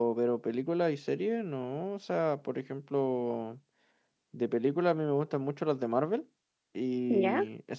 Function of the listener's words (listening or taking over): listening